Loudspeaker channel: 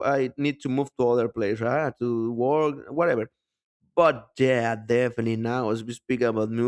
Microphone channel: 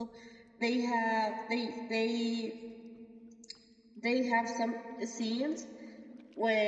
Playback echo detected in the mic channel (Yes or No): No